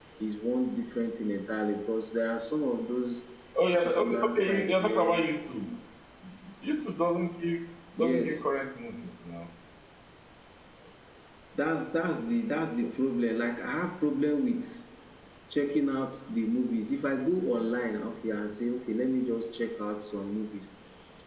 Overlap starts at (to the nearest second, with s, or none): 4 s